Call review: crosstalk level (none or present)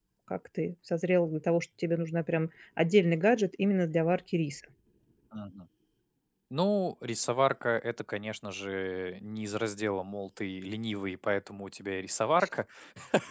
none